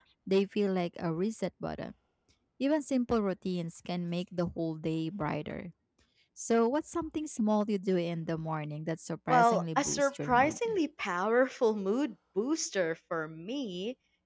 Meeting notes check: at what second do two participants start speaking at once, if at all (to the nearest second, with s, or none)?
9 s